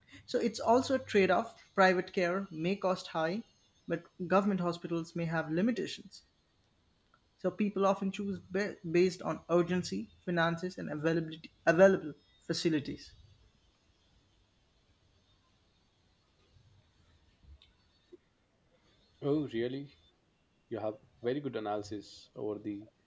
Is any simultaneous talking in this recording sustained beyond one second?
No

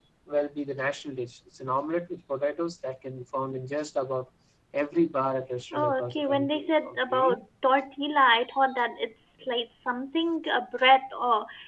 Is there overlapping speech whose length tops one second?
Yes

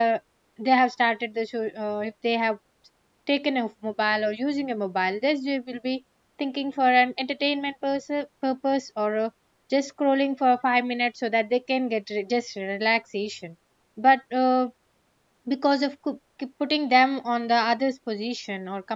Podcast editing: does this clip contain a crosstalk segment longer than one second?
No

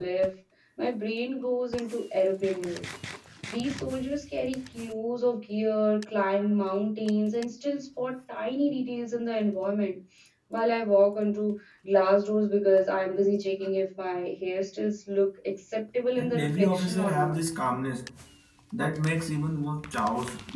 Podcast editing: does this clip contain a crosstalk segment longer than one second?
Yes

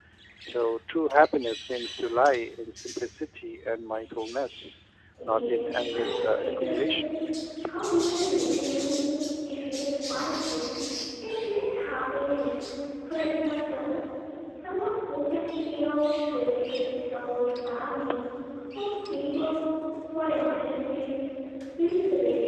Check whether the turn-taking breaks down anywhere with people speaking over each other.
Yes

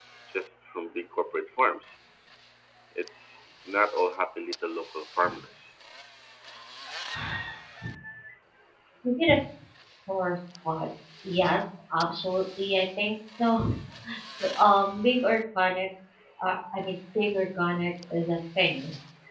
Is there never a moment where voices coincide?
Yes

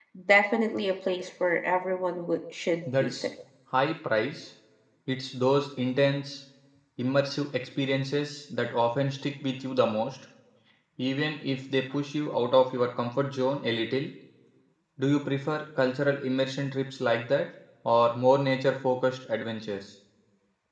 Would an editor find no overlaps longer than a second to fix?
Yes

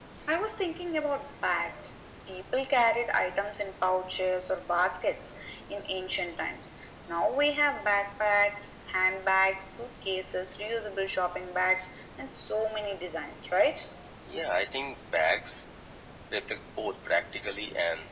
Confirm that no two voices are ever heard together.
Yes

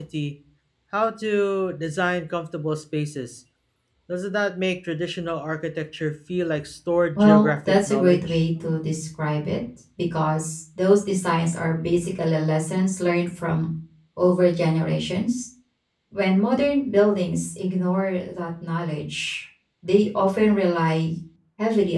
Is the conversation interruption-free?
No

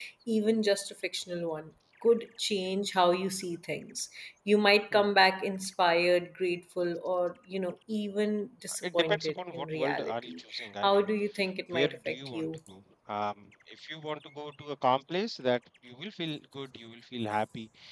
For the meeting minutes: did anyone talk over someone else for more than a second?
Yes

